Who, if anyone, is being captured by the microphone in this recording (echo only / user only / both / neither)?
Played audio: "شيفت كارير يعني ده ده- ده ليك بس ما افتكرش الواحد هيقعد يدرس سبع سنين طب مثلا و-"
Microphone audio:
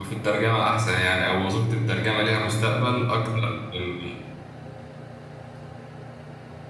user only